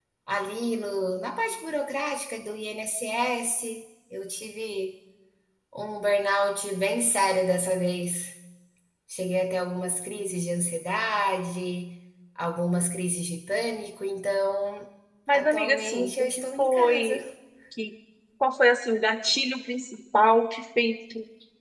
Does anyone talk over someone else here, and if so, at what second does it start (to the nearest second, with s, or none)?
15 s